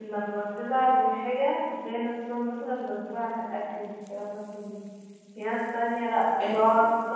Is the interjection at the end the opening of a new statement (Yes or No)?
No